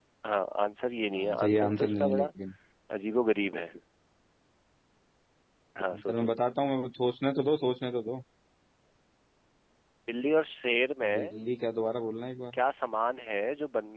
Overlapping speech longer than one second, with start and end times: 1.1-2.3

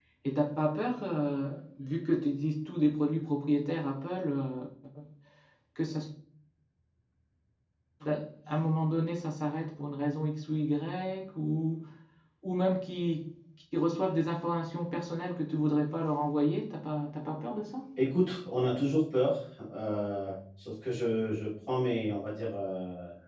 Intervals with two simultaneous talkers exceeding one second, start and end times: none

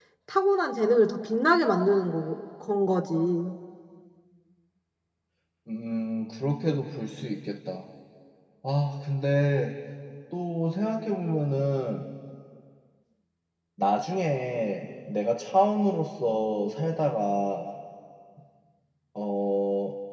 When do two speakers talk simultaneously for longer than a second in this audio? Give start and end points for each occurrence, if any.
none

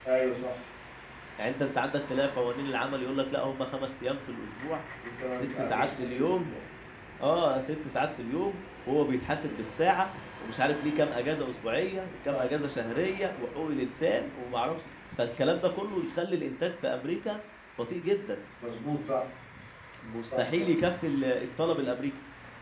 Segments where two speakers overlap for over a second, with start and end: 5.3-6.5

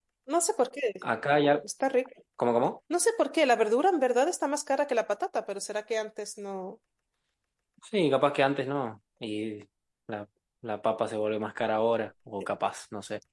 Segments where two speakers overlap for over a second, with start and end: none

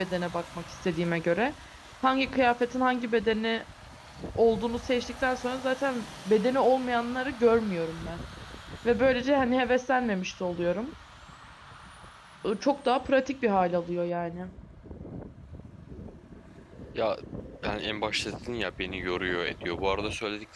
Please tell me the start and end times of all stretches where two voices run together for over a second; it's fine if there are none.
none

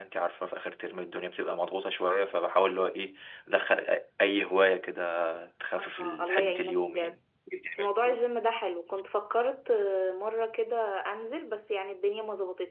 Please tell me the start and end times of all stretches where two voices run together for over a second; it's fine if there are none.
5.8-7.2

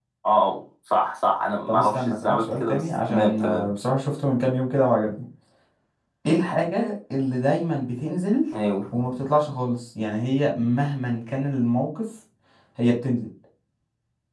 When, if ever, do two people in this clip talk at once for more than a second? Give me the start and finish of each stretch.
1.7-3.7

